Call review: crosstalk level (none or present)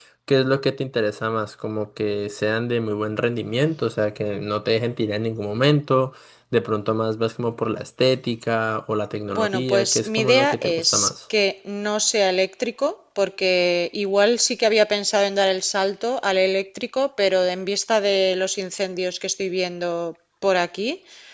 present